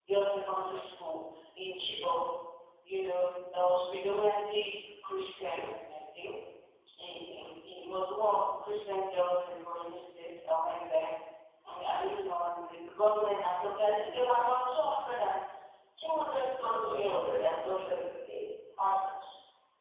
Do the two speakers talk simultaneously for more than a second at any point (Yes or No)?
Yes